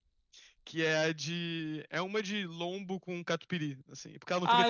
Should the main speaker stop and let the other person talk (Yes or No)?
Yes